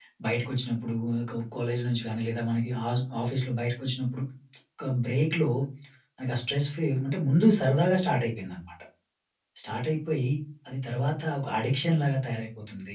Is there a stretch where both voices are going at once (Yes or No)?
No